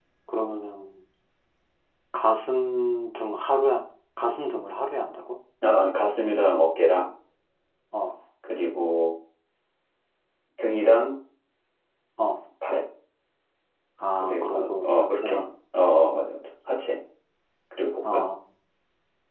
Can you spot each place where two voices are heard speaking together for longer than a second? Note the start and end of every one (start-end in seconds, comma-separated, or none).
14.2-15.5